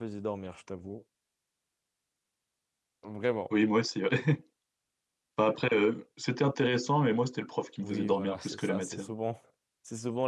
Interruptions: present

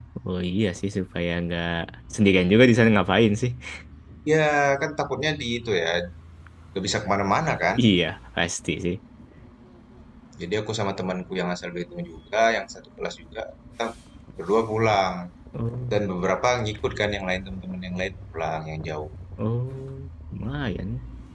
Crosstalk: none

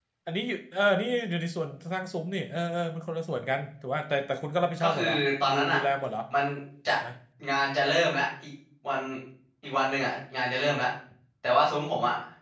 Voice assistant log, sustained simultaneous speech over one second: none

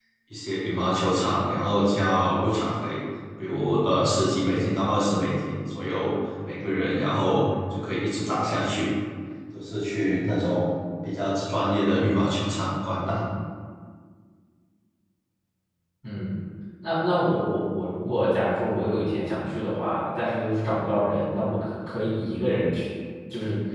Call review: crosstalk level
none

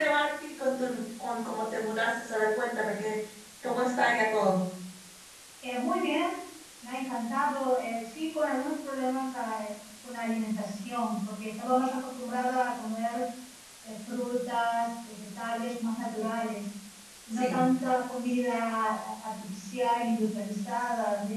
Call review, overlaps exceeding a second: none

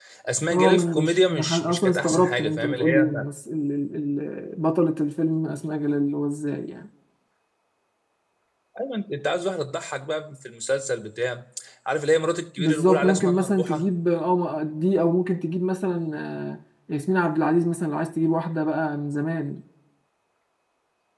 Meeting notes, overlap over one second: present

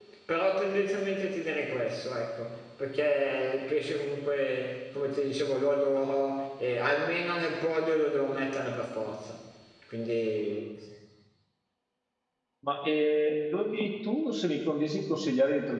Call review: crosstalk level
none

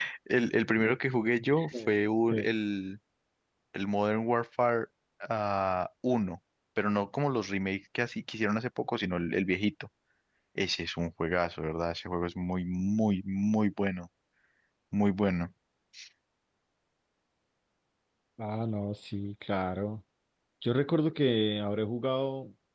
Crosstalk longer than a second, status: none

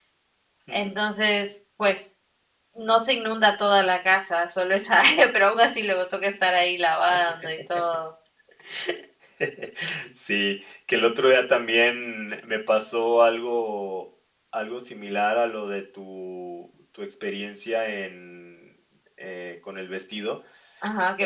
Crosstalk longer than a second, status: none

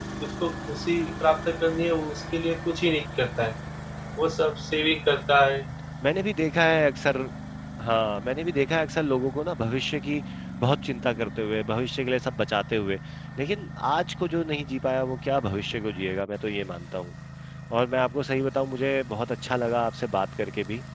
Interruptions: none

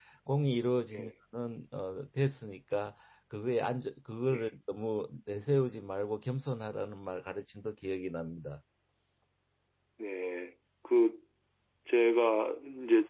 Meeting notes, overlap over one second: none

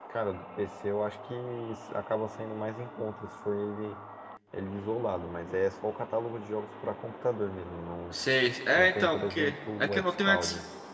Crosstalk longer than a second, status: present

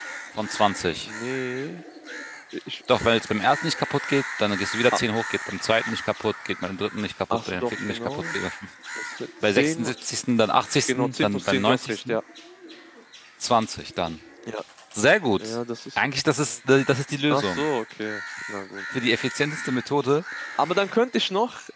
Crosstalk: present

